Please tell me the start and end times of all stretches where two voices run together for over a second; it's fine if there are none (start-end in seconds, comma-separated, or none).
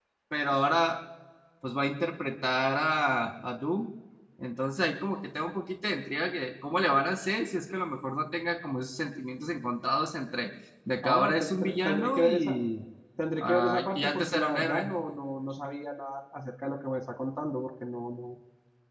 11.0-12.6, 13.4-14.9